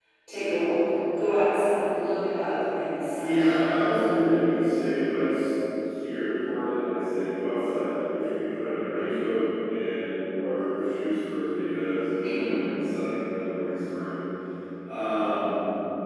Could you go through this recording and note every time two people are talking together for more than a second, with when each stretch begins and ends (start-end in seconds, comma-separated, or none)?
3.1-4.3